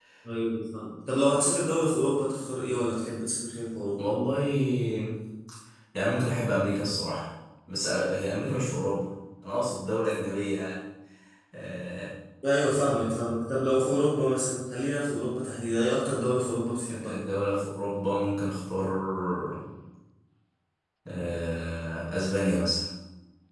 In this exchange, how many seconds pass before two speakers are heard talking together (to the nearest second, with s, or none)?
none